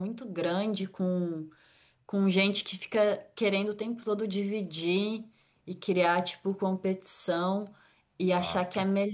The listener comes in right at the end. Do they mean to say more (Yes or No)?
No